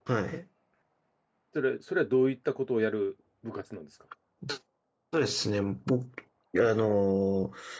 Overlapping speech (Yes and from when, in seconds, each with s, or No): No